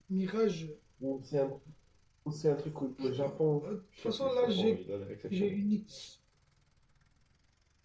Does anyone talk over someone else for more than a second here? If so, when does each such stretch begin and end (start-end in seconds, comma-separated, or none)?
3.0-4.8